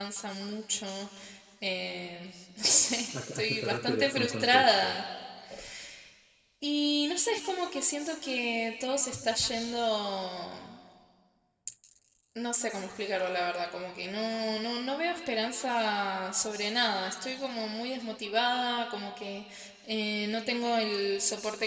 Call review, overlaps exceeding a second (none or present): present